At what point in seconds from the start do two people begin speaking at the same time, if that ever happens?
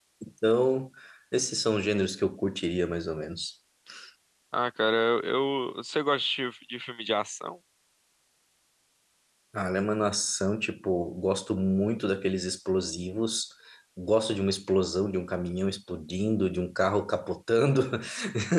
none

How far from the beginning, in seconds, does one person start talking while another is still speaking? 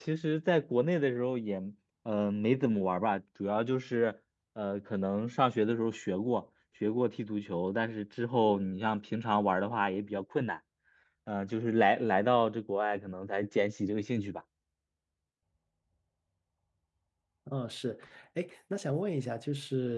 none

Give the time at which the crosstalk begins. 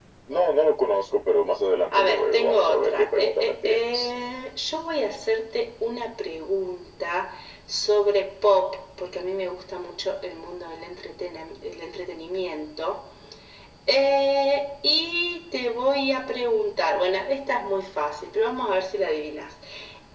1.7 s

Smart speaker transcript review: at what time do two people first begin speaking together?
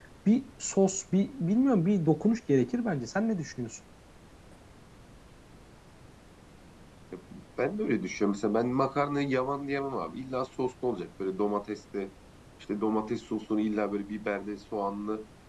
none

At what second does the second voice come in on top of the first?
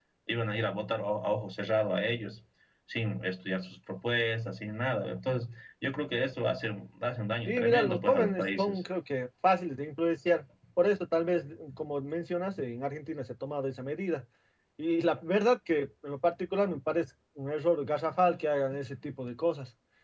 7.5 s

